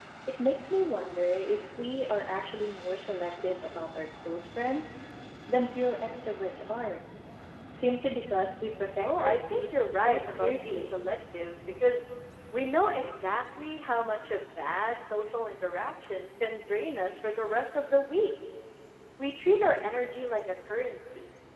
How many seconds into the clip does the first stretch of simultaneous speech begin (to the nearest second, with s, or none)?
9 s